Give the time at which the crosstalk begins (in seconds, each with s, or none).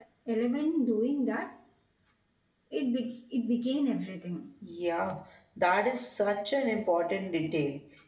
none